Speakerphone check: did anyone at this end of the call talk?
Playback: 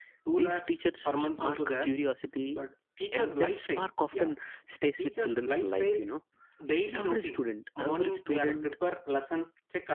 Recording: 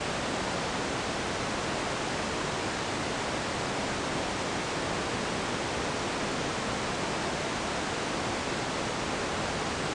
No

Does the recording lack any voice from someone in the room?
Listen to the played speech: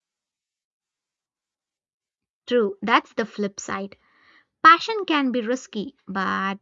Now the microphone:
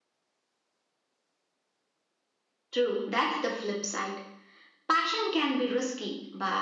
Yes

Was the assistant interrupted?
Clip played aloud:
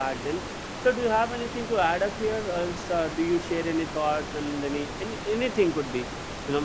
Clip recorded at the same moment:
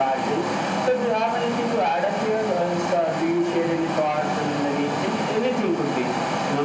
No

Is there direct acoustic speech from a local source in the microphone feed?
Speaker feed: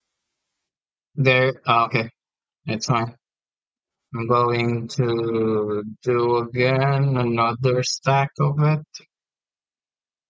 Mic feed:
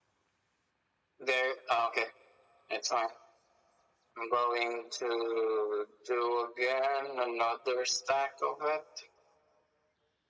No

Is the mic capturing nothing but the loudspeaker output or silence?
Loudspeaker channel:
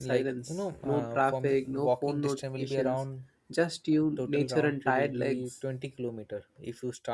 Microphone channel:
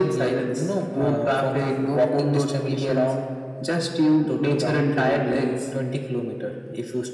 Yes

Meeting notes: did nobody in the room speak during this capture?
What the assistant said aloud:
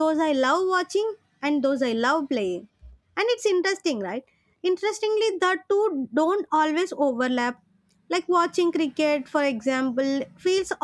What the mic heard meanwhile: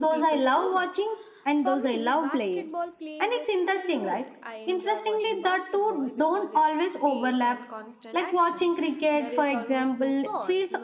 No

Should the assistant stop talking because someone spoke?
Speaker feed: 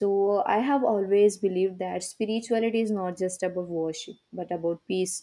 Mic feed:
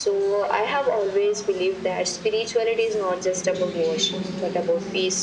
Yes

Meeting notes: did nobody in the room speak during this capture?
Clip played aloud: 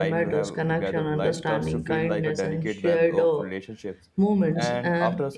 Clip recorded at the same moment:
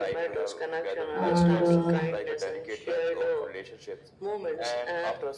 No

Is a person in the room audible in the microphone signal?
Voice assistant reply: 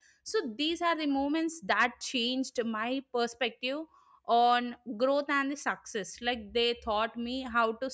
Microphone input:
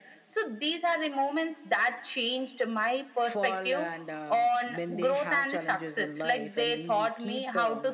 Yes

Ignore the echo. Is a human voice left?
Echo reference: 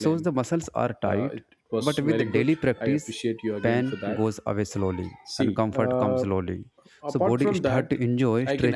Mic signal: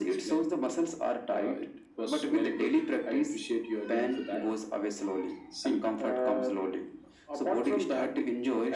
No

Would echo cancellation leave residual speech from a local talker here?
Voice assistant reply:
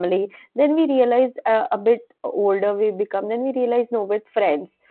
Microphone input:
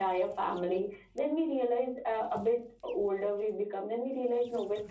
No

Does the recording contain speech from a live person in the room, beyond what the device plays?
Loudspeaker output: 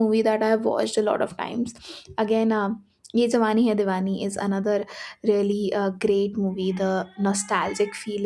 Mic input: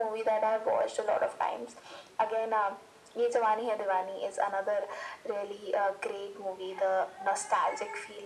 No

